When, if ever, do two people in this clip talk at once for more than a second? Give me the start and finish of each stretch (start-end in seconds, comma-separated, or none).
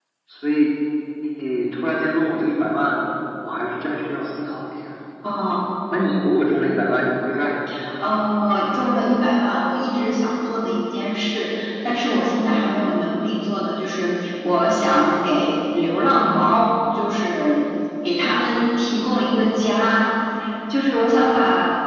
none